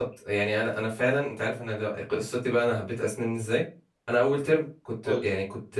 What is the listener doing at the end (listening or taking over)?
listening